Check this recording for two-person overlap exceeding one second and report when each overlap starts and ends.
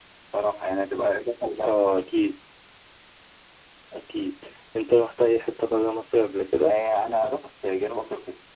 none

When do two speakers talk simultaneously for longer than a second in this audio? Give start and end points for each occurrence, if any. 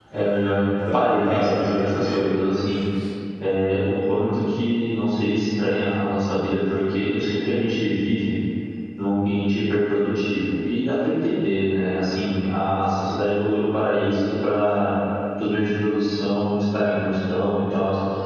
0.9-2.4

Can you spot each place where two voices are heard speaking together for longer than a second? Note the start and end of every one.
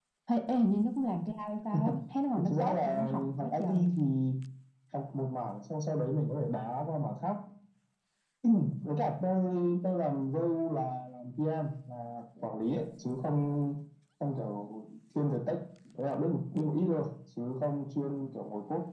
2.4-3.9

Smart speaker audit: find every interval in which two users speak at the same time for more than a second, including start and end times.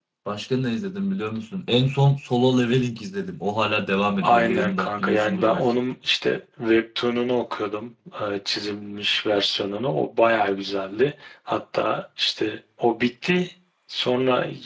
4.2-5.8

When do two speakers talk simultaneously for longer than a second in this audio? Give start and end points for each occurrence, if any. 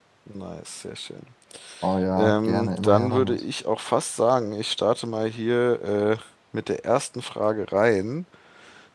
2.2-3.4

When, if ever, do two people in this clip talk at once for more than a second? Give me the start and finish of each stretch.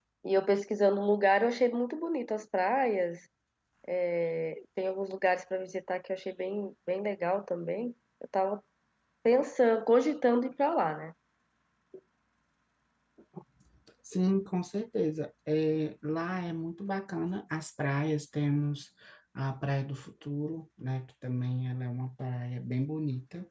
none

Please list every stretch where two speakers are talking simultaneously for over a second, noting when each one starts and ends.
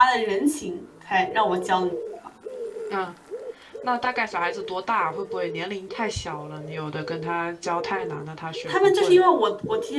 none

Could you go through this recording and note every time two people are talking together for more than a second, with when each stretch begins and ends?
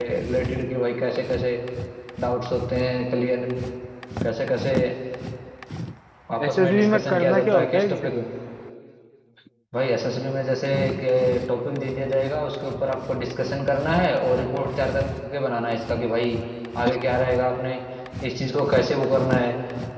6.5-8.1

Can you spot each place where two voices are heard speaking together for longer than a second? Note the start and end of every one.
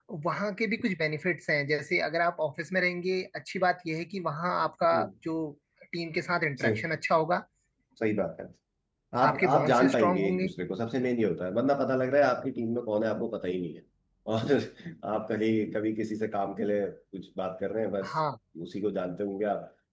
9.2-10.5

